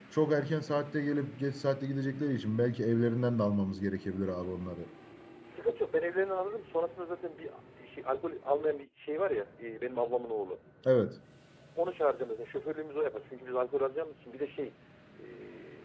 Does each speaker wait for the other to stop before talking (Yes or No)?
Yes